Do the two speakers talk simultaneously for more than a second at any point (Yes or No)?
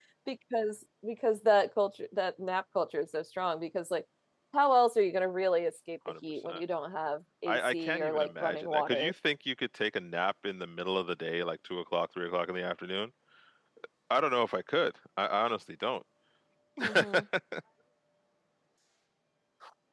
Yes